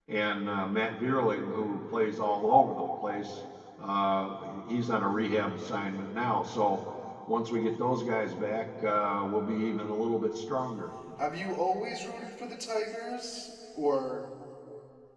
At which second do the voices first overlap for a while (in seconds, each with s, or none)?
none